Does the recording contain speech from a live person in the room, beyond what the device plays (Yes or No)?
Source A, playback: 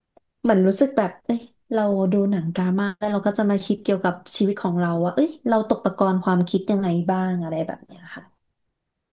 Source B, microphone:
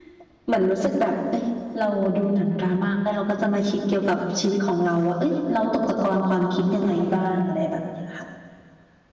No